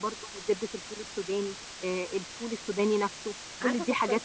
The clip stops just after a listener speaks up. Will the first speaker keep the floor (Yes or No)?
No